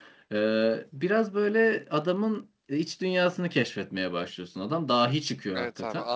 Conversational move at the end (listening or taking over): taking over